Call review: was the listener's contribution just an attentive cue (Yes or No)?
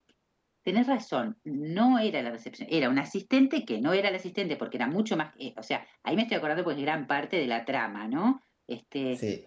Yes